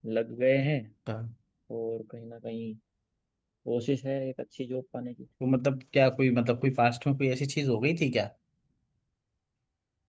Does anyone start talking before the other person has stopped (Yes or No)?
No